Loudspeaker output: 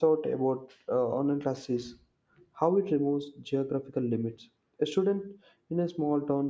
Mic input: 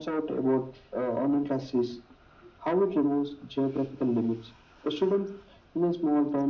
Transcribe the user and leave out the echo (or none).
none